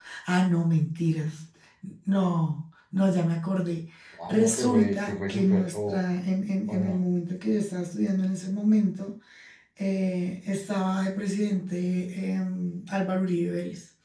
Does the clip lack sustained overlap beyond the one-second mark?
No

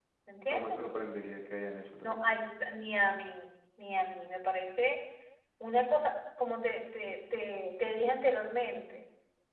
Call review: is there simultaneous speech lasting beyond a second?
No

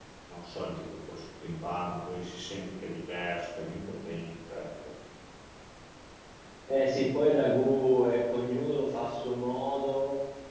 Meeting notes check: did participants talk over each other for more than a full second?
No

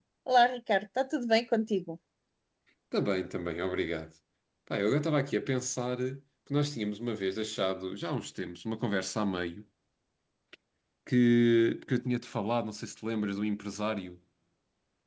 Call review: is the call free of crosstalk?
Yes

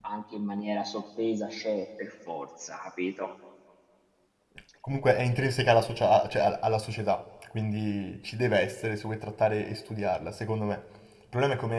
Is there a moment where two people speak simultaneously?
No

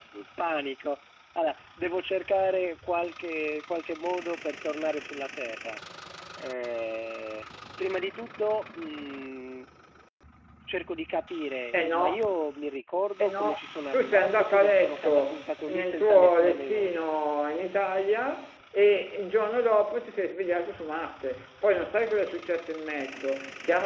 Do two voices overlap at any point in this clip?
Yes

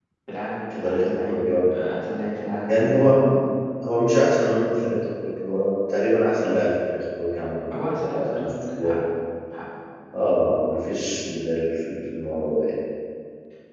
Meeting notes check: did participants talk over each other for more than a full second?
Yes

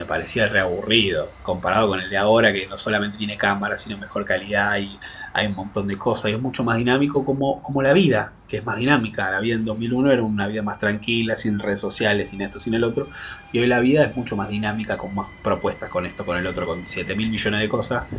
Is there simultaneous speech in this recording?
No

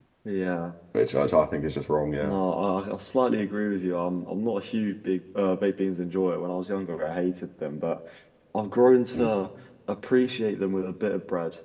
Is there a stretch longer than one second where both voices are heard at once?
No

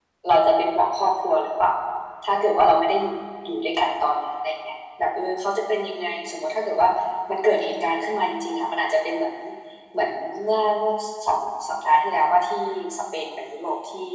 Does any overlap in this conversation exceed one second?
No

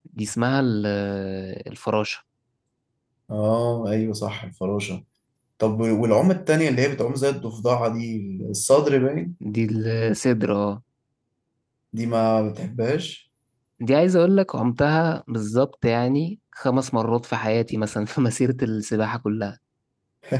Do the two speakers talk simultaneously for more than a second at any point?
No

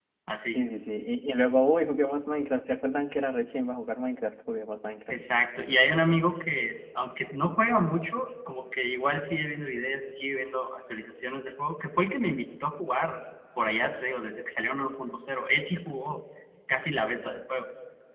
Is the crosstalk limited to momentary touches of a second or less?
Yes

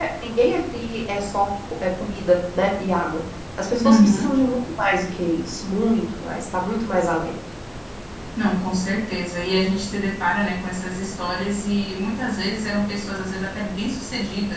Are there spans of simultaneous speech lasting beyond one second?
No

